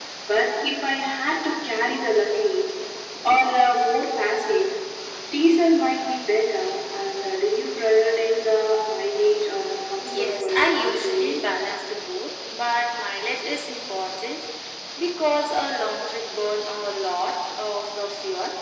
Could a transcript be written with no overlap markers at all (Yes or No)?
No